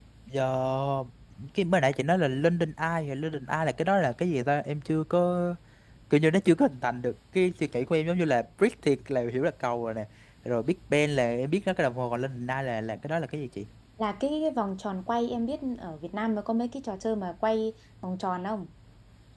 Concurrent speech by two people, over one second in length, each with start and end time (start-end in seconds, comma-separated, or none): none